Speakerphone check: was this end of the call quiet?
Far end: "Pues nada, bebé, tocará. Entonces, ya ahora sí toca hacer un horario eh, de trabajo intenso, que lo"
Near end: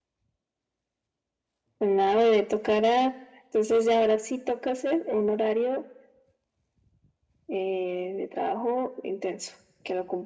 Yes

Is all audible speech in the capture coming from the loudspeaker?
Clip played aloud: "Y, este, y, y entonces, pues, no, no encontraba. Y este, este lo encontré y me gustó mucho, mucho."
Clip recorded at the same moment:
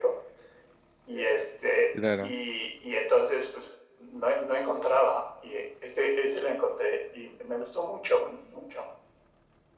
No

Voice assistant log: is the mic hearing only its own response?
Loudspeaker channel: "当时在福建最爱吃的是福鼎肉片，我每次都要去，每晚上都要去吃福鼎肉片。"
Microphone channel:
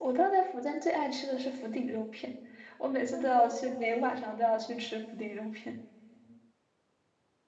No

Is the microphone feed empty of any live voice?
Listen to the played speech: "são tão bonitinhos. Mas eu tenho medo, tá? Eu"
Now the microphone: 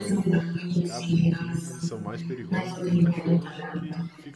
No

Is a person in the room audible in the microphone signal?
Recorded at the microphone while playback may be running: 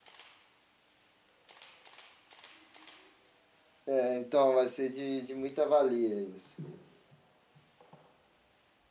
Yes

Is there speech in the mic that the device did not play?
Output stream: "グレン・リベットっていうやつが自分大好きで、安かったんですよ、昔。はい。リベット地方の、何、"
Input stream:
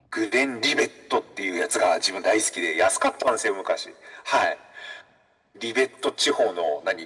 No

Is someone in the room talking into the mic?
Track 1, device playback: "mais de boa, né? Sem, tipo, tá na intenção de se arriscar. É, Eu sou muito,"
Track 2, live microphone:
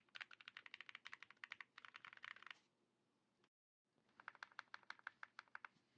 No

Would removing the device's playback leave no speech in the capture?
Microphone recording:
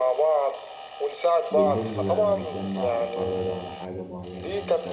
No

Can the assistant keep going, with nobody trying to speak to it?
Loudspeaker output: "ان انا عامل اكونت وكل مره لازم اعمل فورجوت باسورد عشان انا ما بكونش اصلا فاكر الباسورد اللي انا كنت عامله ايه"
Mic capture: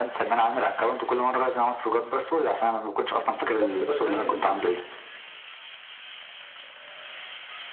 No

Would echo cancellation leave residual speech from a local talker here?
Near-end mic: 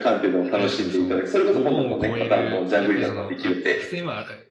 Yes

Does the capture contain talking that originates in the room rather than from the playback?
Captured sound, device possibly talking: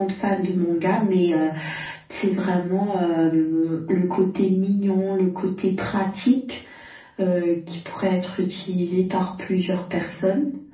No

